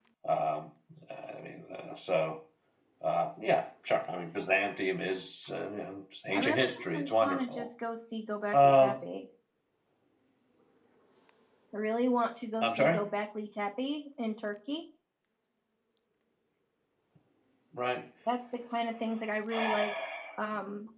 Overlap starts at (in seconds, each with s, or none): 6.3 s